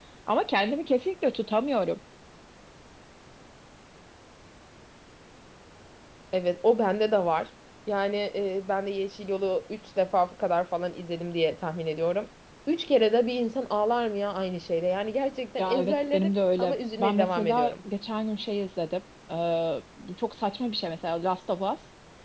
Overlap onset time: 15.6 s

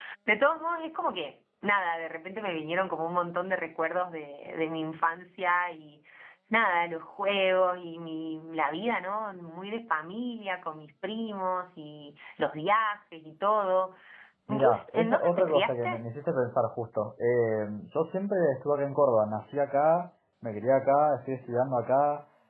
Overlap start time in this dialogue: 14.6 s

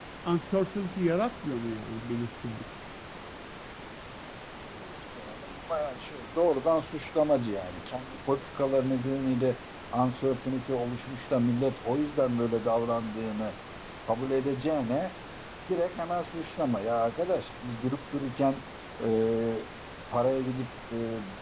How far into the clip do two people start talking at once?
none

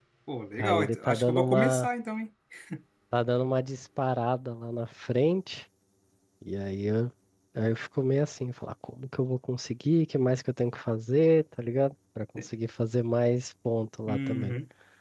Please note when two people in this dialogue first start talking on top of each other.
0.6 s

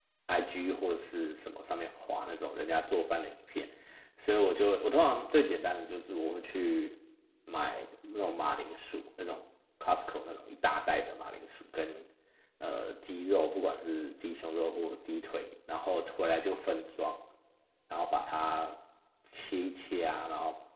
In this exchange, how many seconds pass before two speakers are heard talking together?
none

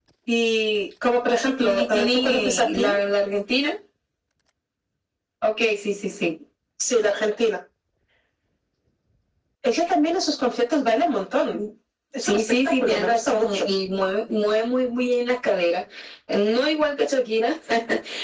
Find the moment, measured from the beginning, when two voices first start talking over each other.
1.6 s

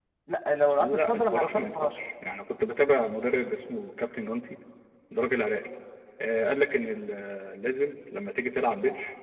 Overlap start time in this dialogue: 0.8 s

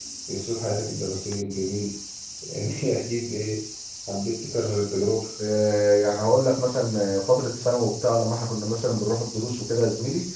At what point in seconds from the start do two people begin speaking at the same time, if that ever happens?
none

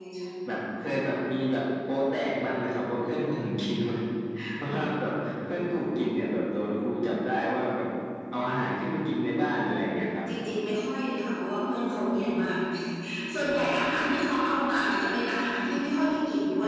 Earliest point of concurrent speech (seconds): none

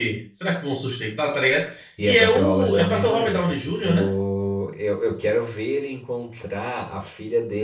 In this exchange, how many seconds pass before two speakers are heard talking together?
2.0 s

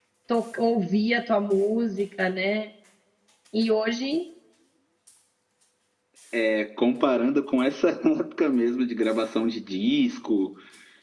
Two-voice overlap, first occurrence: none

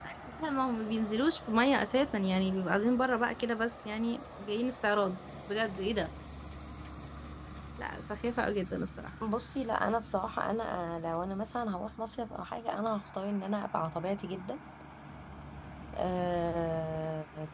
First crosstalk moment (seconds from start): none

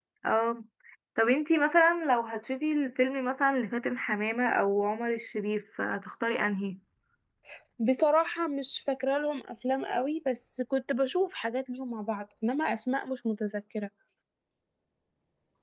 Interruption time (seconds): none

